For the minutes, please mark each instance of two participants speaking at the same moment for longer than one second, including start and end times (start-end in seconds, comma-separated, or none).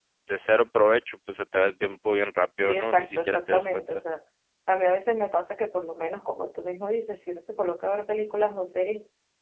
2.6-4.0